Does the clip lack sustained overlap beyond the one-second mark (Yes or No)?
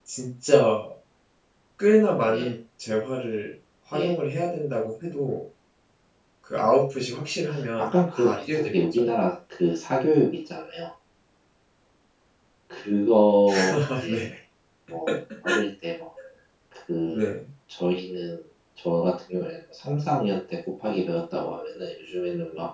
No